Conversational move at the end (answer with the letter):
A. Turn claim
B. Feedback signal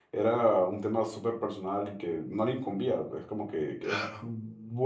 B